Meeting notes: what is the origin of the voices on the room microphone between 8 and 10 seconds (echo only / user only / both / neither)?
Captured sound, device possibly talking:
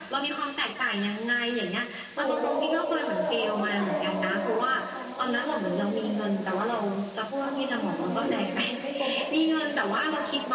both